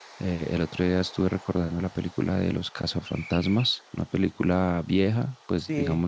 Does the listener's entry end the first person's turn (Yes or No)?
Yes